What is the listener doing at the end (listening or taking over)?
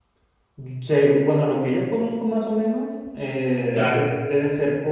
listening